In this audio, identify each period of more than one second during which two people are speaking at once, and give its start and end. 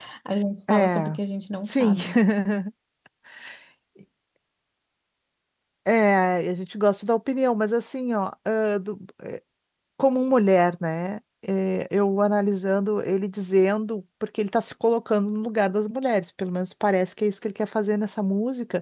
none

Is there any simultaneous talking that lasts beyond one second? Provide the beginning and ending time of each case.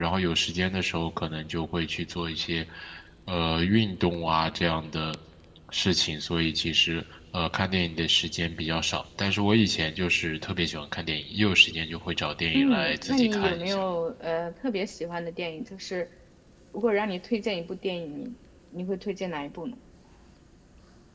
12.5-13.8

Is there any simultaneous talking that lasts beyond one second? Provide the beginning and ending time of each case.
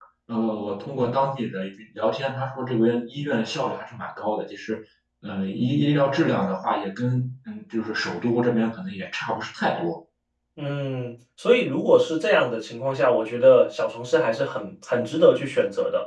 none

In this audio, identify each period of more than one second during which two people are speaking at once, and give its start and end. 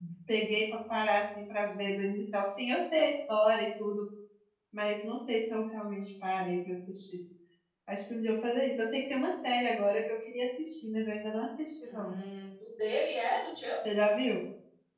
none

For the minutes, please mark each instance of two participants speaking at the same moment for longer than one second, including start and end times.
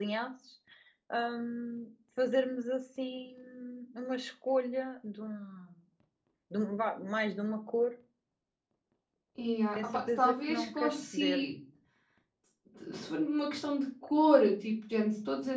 9.8-11.4

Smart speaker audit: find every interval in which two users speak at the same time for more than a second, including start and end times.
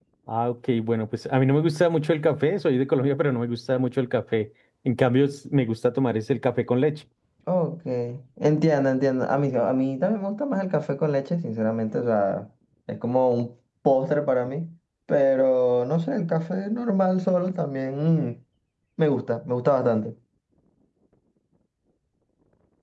none

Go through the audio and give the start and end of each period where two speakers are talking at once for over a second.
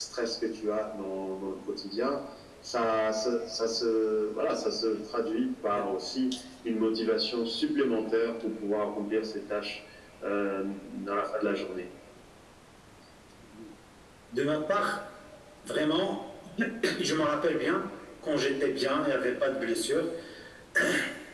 none

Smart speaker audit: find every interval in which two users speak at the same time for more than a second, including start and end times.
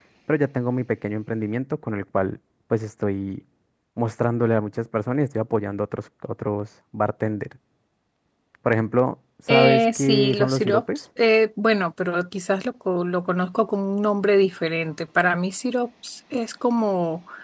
9.5-10.8

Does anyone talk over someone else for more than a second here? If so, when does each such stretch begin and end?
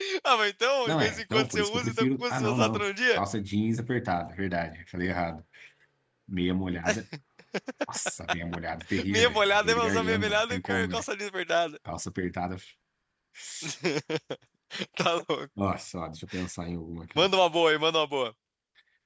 0.8-3.2, 9.1-11.0

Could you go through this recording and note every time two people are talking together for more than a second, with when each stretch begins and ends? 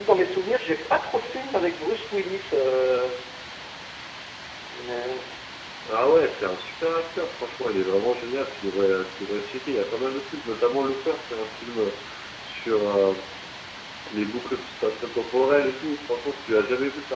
none

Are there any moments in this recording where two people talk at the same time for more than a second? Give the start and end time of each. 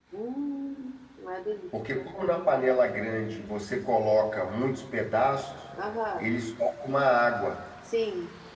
none

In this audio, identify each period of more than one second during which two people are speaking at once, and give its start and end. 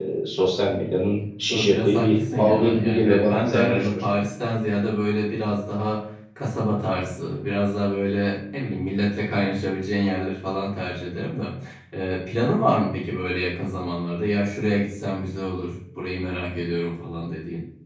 1.5-4.0

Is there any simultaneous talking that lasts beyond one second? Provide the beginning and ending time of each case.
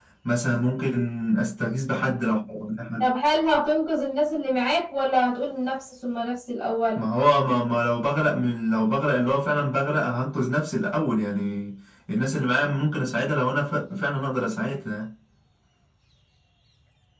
none

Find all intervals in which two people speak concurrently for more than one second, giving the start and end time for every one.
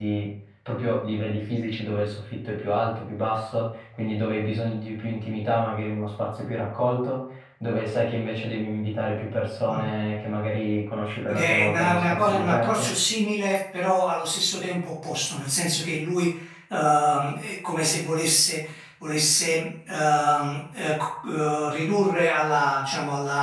11.3-12.9

